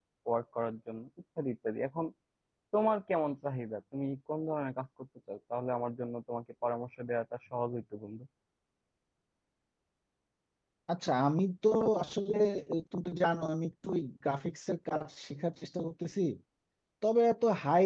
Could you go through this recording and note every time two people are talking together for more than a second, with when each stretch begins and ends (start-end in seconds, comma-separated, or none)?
none